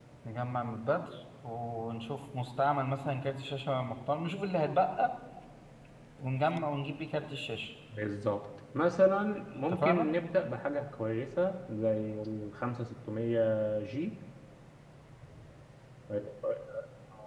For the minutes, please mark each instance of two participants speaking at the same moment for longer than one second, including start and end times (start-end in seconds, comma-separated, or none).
none